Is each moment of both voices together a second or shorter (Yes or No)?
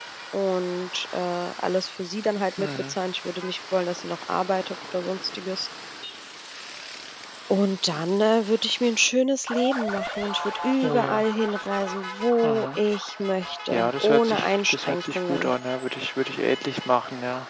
No